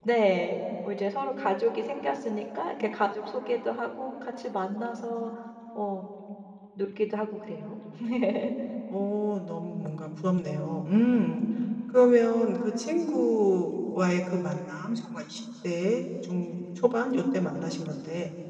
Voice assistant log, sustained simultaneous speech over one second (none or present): none